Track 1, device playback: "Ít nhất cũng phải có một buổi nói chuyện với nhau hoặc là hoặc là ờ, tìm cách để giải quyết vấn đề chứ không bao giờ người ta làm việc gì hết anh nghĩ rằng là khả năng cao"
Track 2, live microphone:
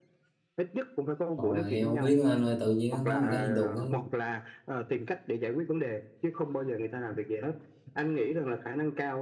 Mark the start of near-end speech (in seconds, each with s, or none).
1.4 s